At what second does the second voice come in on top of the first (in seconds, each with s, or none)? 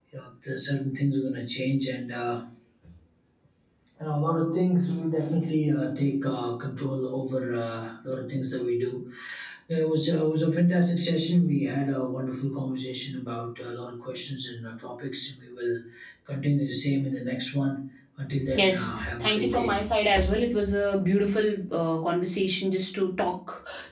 18.5 s